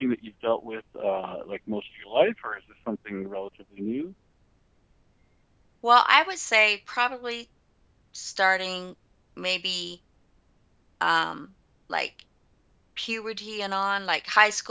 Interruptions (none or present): none